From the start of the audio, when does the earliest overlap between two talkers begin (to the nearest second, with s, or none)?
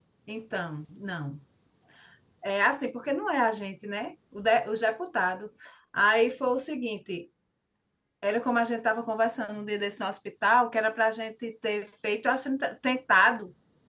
none